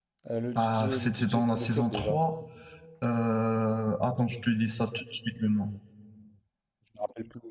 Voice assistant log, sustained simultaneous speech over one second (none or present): present